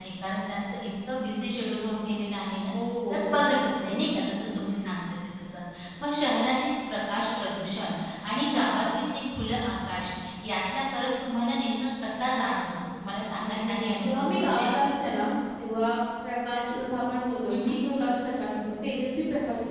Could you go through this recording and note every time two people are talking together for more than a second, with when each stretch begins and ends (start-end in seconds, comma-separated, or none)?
13.4-14.7